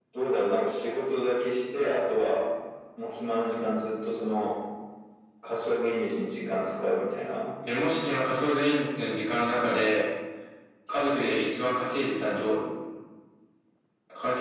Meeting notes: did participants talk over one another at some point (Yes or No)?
No